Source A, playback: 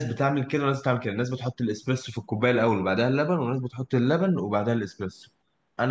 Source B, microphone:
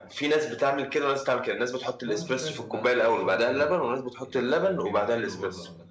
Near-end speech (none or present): present